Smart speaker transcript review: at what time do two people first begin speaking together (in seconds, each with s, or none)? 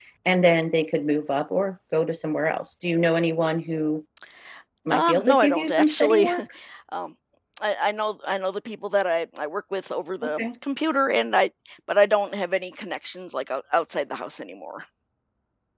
4.9 s